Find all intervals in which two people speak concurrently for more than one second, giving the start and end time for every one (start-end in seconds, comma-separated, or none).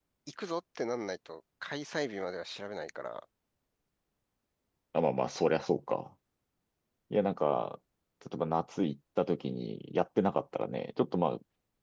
none